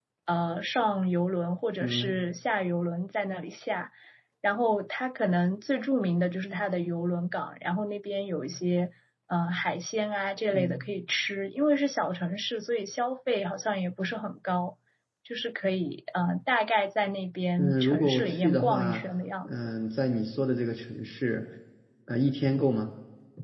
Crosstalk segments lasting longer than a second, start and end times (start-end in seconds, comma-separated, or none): 17.6-19.0